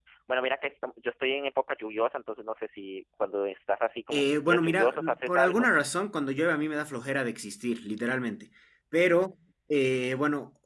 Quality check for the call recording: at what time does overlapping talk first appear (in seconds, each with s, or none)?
4.1 s